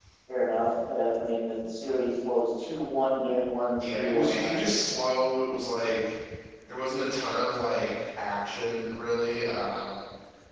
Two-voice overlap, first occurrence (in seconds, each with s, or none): 3.8 s